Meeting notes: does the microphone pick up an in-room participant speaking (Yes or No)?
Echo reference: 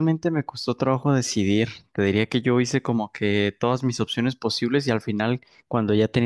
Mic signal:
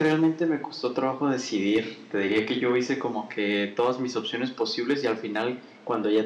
No